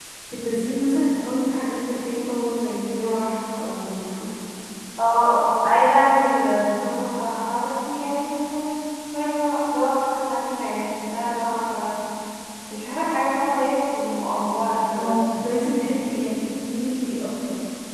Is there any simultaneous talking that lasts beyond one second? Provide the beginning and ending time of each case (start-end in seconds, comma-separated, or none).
none